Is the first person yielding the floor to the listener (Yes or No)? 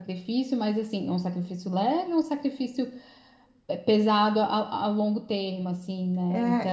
Yes